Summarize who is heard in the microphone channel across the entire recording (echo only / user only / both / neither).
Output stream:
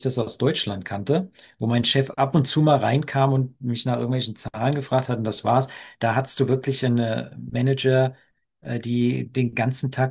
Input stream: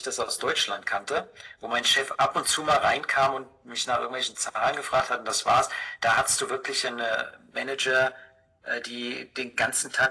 echo only